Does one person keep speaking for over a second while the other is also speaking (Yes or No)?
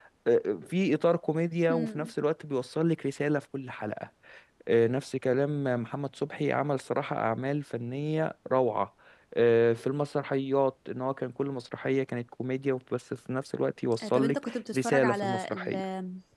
Yes